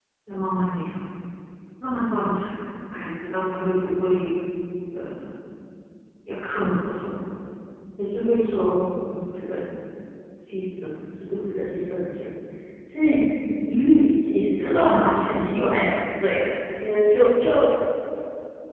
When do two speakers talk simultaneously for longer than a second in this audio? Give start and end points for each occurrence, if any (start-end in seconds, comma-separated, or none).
14.6-15.9